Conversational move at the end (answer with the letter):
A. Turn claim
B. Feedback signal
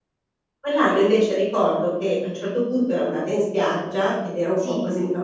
B